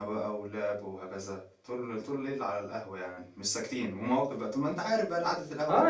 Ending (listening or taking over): taking over